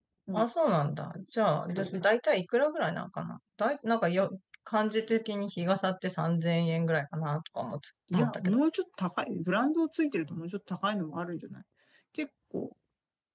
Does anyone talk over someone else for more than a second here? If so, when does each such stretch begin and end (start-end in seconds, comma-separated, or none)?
none